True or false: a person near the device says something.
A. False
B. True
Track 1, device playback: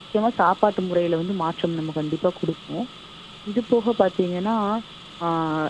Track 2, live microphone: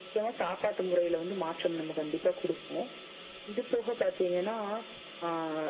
A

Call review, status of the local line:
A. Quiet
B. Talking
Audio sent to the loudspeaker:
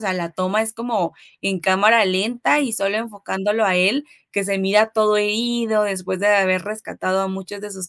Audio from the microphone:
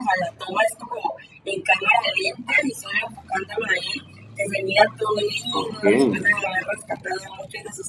B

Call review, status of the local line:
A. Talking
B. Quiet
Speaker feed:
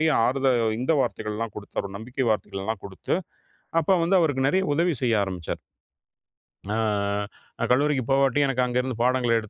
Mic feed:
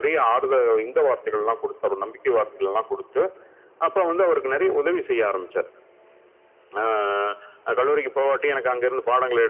B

